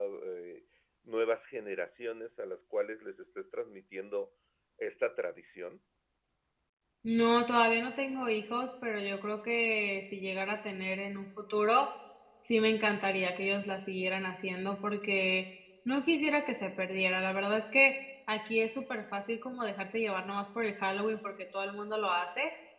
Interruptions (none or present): none